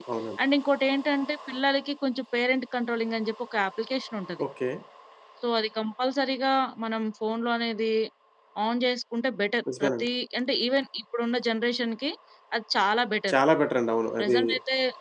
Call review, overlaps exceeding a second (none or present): none